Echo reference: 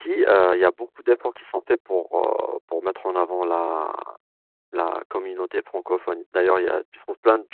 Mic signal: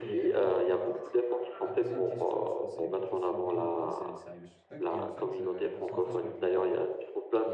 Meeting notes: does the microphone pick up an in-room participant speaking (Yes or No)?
Yes